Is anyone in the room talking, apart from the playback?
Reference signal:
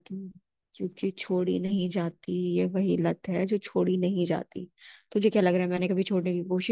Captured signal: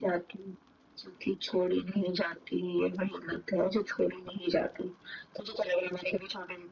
No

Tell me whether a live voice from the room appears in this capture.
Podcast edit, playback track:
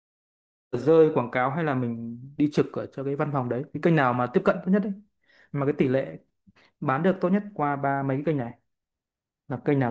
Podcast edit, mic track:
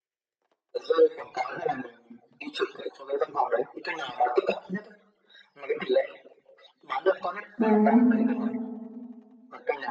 Yes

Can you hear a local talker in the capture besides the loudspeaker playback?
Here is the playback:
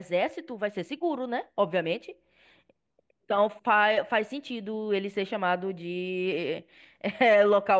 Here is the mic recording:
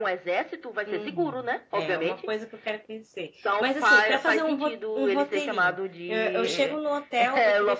Yes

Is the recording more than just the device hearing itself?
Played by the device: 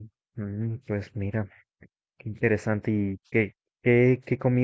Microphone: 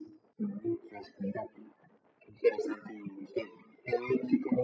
No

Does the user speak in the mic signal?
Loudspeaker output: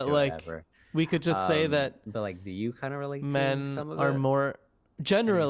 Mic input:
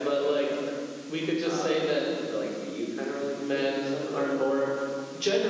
No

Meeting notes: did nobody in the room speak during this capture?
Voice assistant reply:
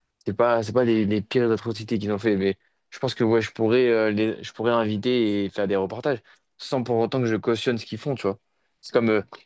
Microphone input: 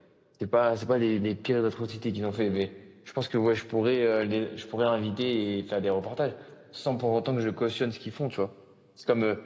Yes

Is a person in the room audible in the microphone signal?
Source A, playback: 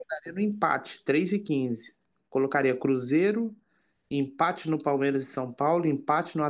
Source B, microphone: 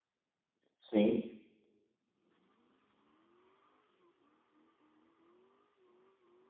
Yes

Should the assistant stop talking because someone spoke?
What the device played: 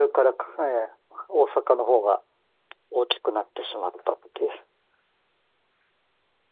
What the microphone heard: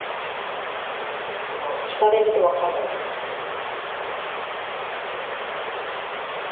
Yes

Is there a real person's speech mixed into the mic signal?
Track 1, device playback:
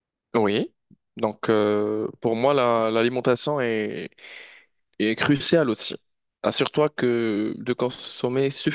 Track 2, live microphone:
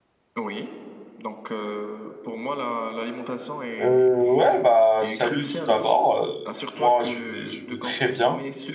Yes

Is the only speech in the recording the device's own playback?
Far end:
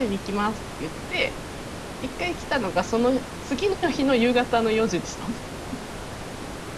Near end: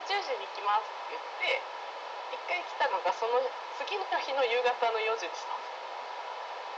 Yes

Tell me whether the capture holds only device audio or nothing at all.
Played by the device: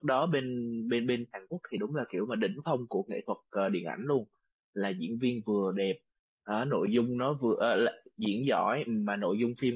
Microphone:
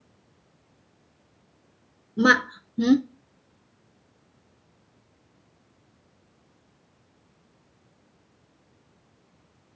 No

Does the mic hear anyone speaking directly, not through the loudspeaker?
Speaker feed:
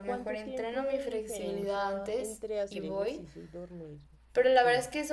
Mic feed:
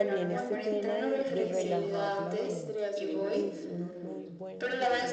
Yes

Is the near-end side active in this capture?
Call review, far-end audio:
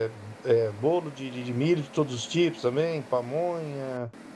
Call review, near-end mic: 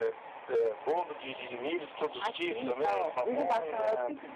Yes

